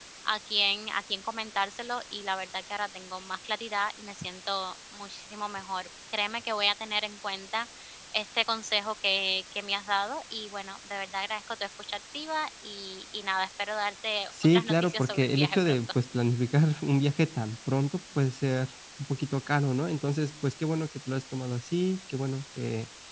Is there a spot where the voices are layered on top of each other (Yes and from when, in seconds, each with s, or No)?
Yes, from 14.3 s